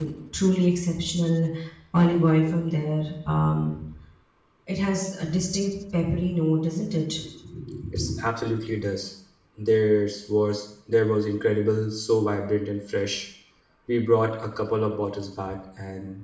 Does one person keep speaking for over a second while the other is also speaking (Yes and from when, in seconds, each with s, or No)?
No